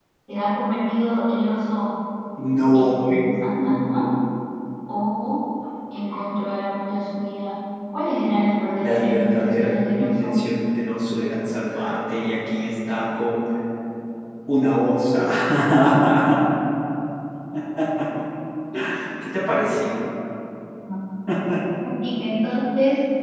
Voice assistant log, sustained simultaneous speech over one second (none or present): present